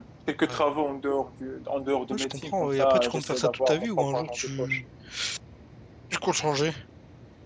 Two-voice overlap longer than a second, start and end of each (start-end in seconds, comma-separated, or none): 2.1-4.8